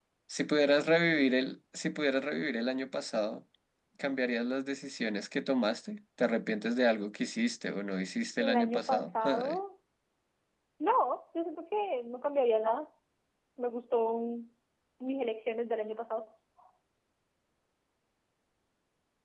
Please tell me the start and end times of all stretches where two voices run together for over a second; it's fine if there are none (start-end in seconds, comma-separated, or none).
8.4-9.6